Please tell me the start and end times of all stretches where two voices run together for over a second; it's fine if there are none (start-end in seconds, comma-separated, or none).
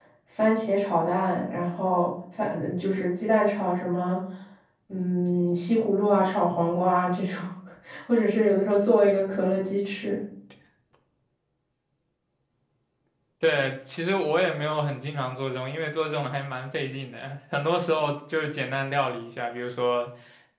none